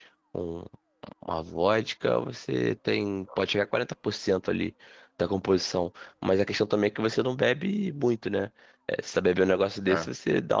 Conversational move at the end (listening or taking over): listening